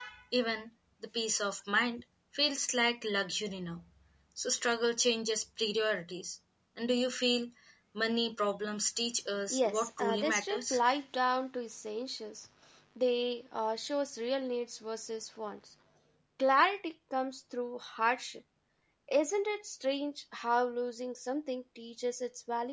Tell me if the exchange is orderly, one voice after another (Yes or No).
No